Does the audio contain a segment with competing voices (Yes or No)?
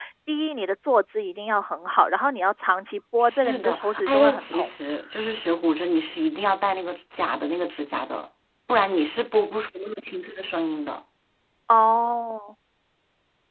Yes